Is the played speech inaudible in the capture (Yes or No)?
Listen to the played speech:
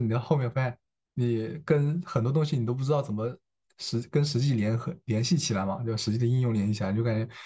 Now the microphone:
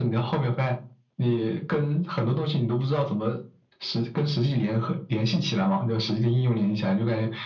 No